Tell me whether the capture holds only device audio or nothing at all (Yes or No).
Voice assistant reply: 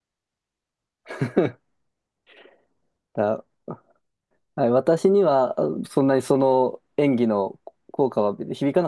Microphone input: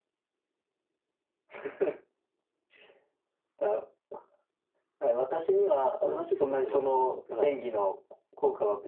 No